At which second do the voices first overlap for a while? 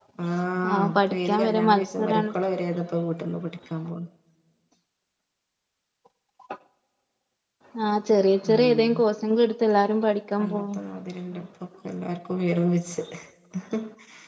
0.7 s

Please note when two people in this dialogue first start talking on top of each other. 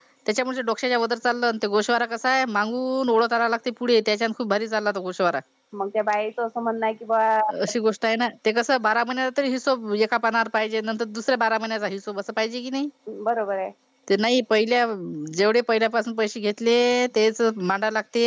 none

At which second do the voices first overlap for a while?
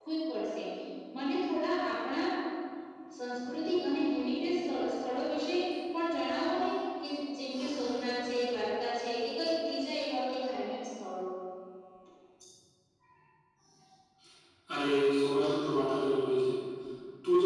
none

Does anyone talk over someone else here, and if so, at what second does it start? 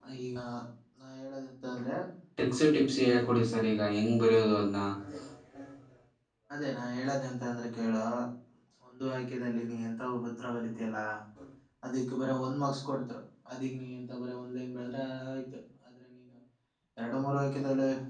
none

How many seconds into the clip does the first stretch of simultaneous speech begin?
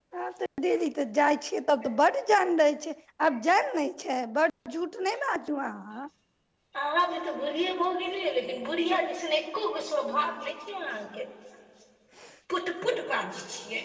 none

